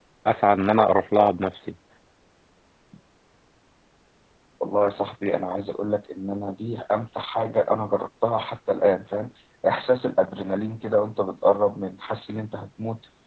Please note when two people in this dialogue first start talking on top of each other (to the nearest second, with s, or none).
none